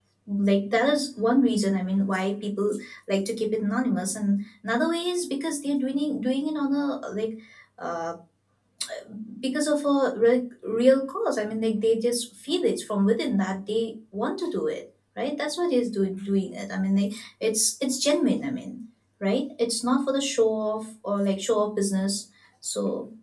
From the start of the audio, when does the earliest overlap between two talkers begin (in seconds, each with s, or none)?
none